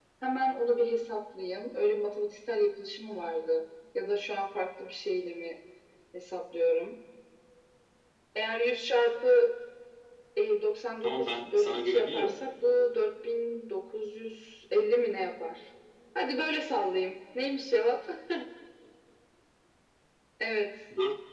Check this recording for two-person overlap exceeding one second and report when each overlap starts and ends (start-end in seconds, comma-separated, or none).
11.0-12.3